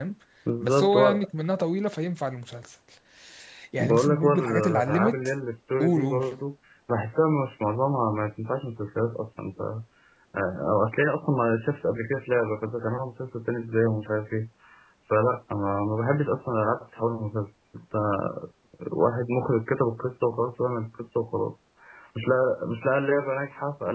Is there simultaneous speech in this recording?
Yes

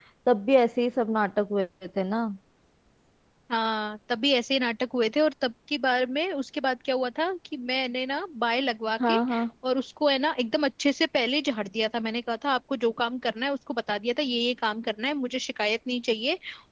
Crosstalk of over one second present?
No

